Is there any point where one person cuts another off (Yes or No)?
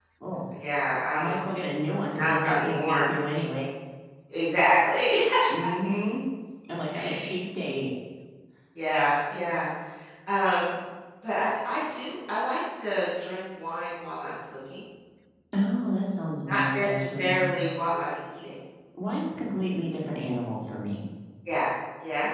Yes